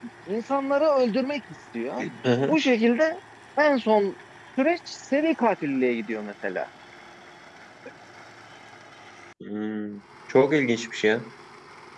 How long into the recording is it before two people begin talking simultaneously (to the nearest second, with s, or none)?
none